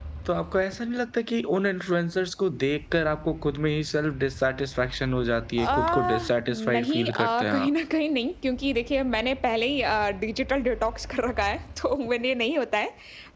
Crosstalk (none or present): present